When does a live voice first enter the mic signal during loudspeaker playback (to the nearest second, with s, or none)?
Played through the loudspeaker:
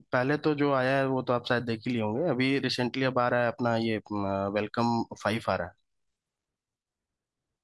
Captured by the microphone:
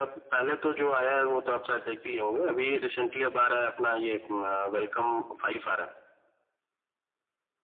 none